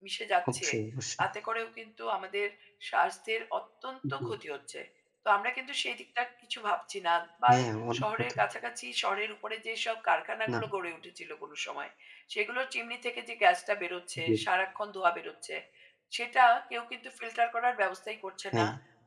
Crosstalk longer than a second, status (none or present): none